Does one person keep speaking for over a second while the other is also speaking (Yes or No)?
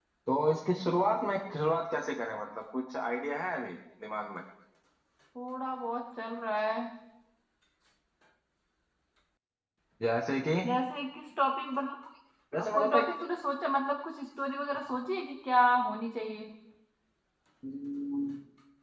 No